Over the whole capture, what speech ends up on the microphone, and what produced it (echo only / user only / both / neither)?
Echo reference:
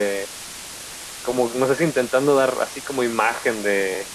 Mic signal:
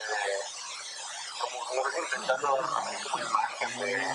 both